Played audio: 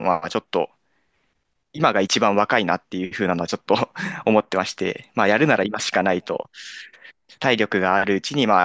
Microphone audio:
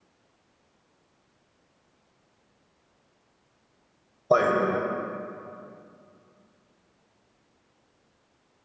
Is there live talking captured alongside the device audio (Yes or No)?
Yes